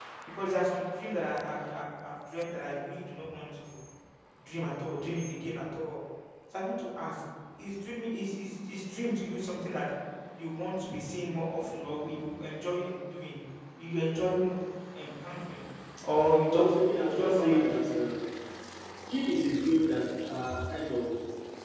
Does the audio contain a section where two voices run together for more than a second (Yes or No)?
Yes